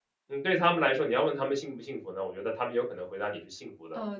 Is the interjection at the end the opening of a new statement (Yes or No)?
Yes